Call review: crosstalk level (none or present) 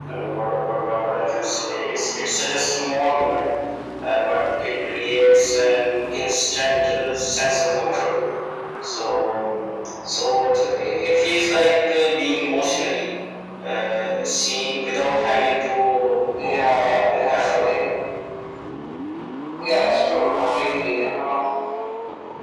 present